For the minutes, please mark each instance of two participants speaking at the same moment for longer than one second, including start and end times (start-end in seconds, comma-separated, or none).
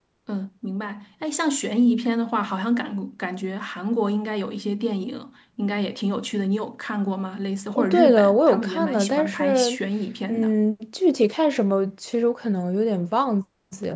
7.8-9.7